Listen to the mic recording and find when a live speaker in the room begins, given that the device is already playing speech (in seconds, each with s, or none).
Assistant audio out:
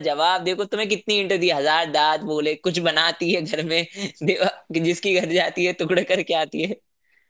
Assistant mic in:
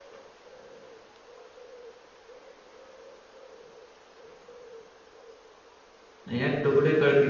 6.3 s